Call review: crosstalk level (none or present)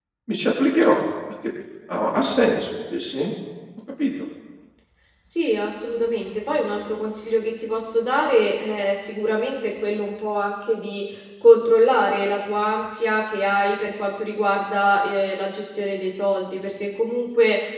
none